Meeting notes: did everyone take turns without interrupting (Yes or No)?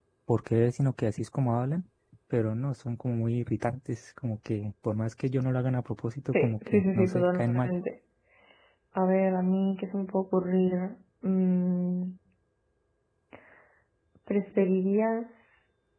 No